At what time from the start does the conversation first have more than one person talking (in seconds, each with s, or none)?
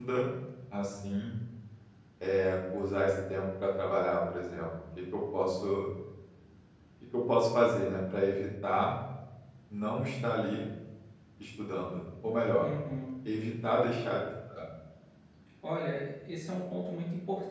none